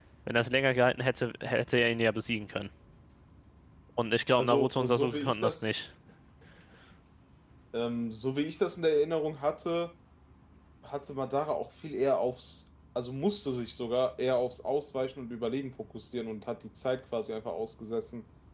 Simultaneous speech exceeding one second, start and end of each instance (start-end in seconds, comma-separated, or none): 4.3-5.7